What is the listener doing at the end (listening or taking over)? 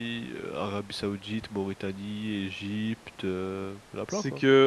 taking over